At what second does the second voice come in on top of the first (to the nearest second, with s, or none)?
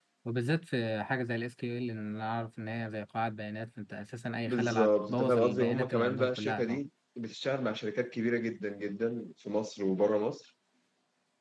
4 s